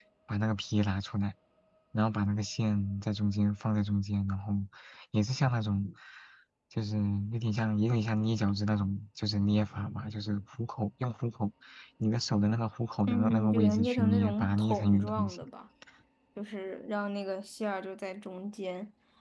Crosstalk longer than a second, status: present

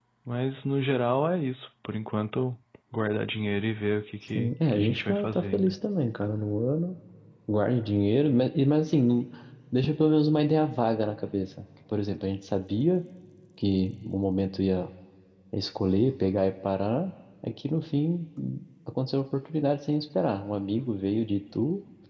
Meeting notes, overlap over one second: present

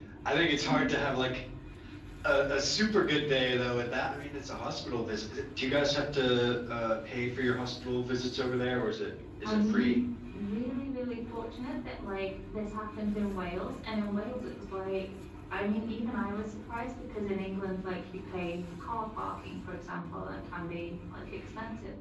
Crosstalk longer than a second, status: none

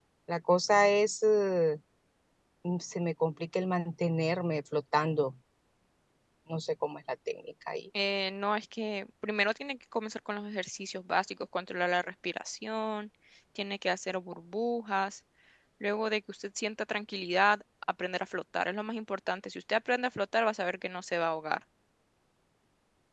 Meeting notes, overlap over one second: none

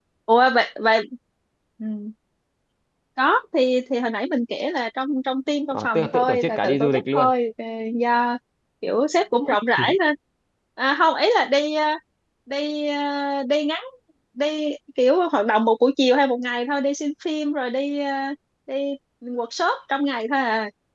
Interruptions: present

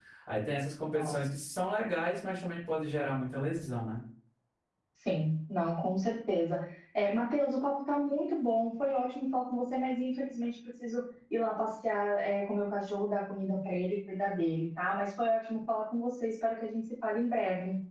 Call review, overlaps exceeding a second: none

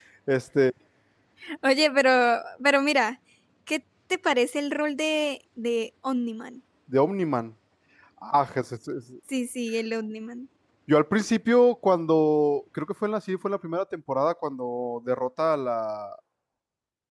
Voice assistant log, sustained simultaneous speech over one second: none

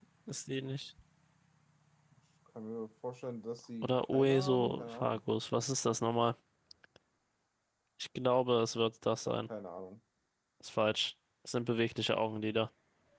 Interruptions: present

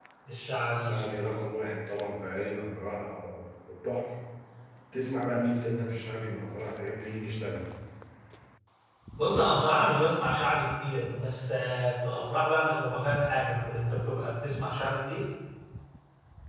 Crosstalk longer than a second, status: none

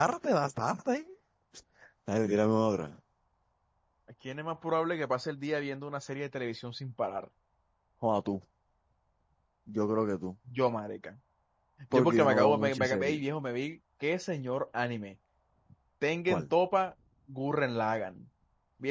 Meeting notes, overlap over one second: present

